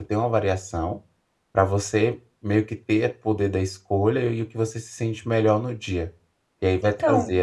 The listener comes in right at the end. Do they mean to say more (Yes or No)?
No